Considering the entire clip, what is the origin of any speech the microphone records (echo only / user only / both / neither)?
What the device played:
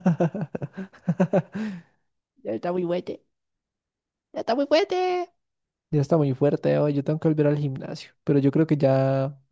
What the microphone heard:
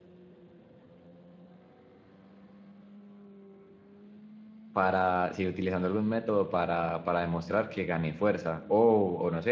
user only